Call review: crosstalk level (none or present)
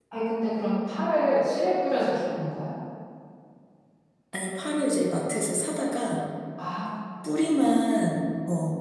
none